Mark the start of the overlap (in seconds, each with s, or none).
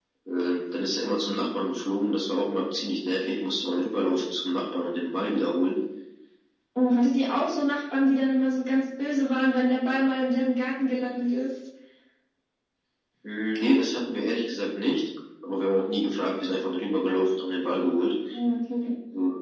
none